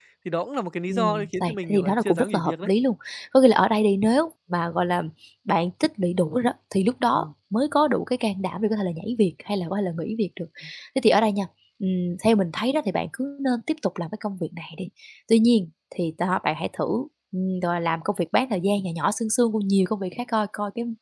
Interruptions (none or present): present